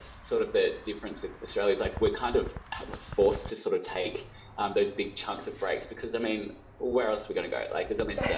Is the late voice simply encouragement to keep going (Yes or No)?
Yes